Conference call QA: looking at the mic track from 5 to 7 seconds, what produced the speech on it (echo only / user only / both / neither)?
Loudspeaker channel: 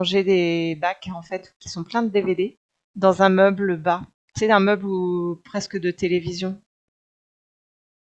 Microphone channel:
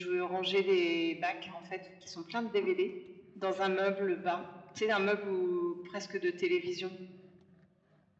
echo only